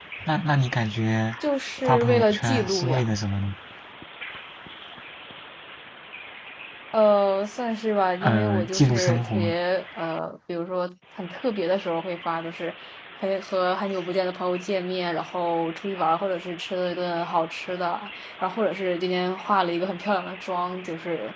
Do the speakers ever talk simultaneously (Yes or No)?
Yes